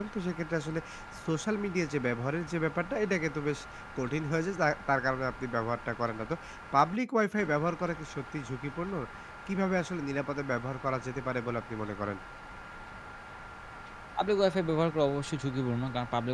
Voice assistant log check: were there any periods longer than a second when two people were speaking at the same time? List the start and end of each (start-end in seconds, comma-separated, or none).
none